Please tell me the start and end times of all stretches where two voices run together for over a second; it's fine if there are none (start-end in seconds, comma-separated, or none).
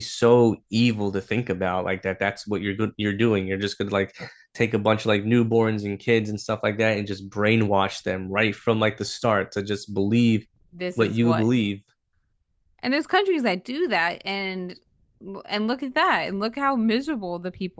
none